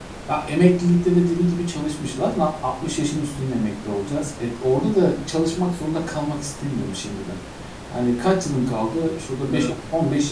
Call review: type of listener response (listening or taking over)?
listening